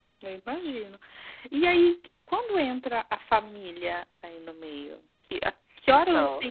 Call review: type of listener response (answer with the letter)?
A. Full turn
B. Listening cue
B